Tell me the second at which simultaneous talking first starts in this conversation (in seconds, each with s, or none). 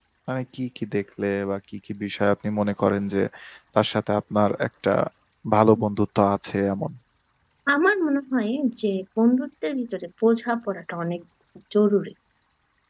none